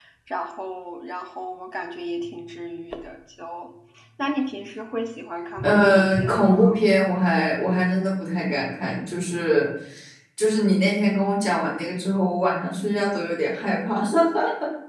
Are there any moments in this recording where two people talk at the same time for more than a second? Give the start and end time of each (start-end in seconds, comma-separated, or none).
5.6-6.8